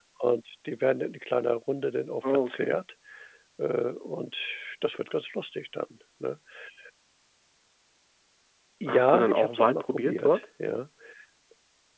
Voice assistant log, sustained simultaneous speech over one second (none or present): present